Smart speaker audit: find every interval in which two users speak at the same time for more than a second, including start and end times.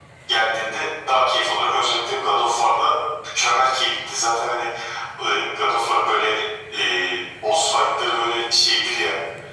none

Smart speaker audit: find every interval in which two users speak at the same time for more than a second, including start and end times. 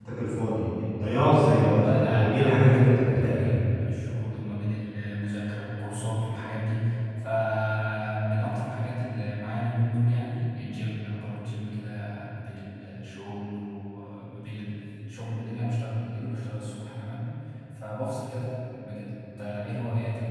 1.6-3.5

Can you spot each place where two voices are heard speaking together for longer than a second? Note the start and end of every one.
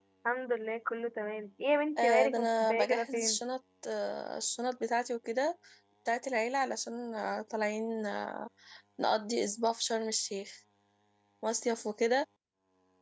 2.0-3.4

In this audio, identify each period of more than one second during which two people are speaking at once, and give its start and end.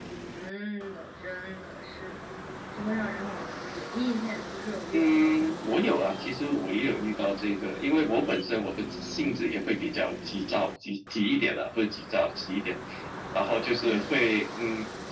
4.9-6.5

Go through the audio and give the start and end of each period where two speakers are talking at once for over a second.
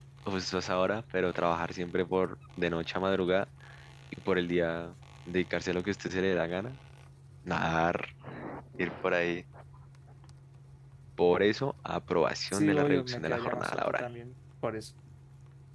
12.5-14.0

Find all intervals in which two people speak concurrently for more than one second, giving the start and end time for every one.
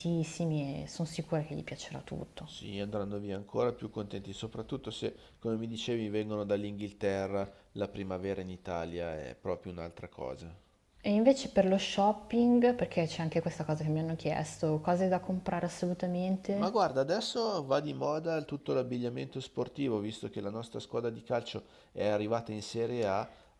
none

